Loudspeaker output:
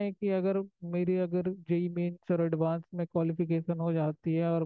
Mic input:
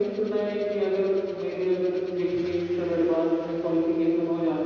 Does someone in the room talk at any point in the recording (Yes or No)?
No